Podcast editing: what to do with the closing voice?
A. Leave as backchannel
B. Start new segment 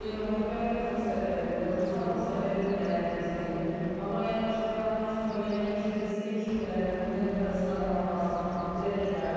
B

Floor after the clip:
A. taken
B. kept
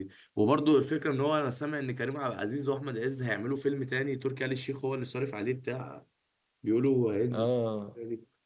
A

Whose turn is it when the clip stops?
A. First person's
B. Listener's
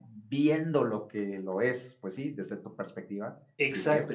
B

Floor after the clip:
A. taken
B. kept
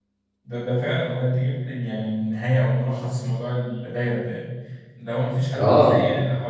B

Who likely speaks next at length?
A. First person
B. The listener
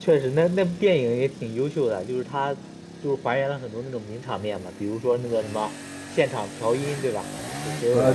B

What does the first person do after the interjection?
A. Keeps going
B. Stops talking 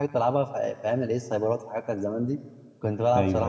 A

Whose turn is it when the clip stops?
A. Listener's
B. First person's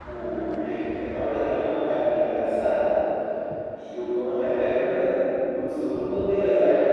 A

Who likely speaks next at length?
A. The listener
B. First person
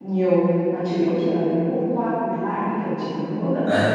A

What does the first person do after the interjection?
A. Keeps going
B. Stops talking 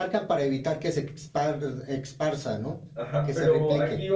B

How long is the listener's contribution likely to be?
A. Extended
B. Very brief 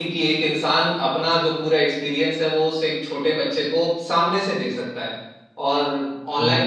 B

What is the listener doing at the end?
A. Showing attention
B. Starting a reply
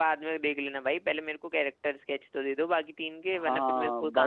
B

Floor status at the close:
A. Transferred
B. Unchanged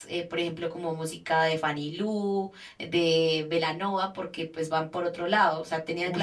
B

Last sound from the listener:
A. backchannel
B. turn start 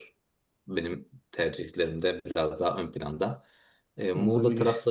A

